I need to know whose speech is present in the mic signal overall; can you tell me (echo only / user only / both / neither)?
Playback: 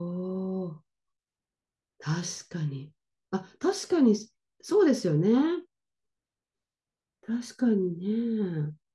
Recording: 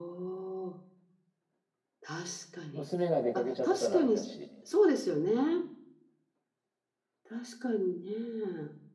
both